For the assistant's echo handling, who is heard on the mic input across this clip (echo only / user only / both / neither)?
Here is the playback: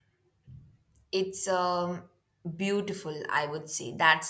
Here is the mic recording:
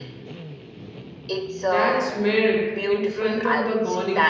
both